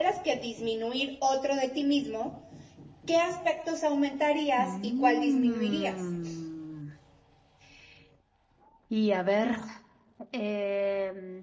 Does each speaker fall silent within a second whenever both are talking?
No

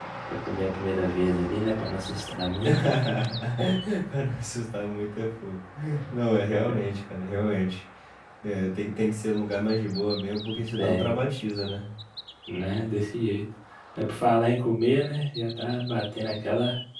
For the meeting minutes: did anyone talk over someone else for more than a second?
No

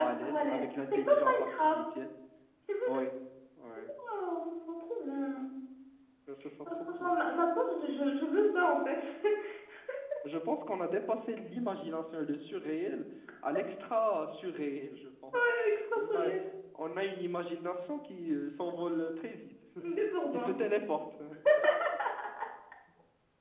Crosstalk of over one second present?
Yes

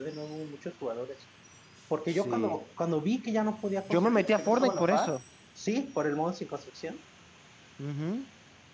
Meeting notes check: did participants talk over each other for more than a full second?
Yes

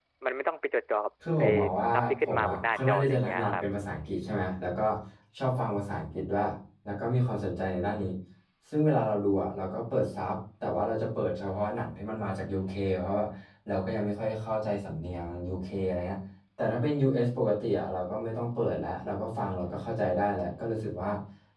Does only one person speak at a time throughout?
No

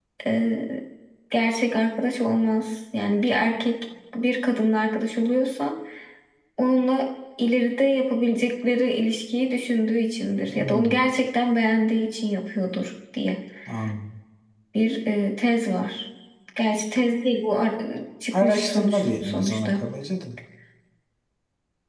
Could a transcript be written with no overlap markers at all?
No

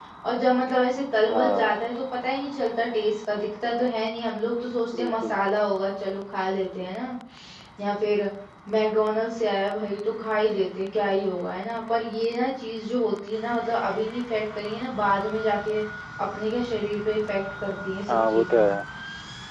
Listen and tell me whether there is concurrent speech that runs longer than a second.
No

